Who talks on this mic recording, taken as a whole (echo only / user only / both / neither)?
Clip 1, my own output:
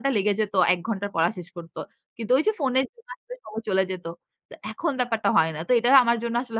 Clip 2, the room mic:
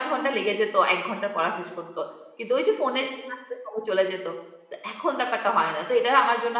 echo only